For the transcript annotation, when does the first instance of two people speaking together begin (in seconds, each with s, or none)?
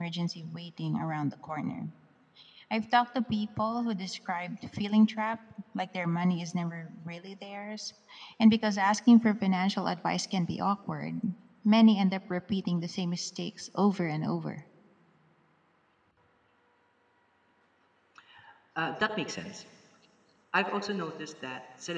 none